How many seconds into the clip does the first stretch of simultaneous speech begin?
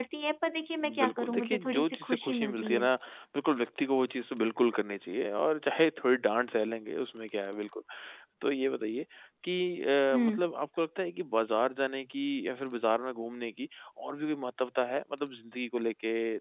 1 s

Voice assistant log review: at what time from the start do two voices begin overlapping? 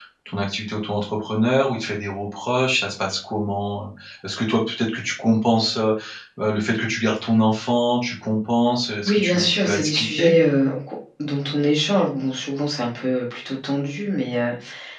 9 s

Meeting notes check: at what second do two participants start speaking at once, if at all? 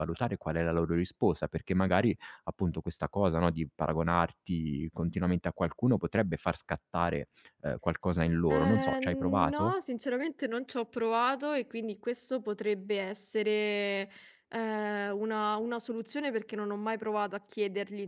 8 s

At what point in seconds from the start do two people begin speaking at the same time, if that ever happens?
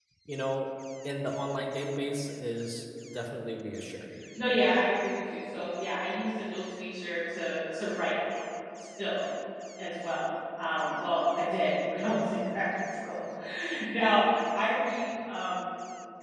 none

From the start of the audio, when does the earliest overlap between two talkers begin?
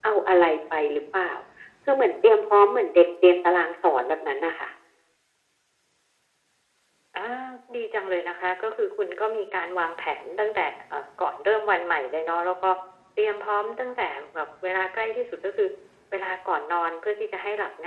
none

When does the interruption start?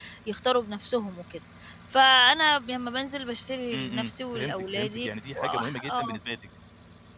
4 s

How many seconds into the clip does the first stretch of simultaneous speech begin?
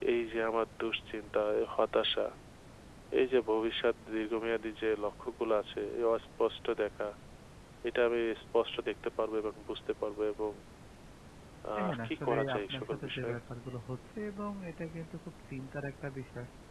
12 s

